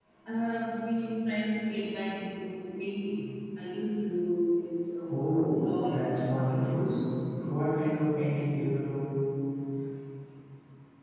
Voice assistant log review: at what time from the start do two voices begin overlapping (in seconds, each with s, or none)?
5.1 s